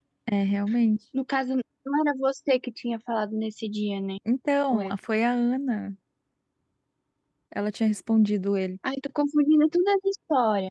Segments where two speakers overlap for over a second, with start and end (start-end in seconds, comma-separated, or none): none